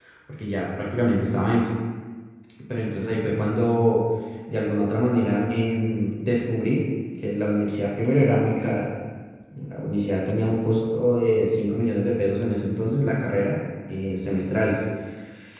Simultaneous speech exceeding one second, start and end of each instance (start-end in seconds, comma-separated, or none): none